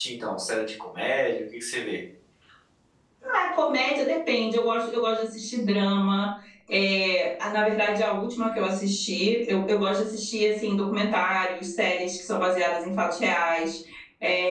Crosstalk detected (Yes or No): No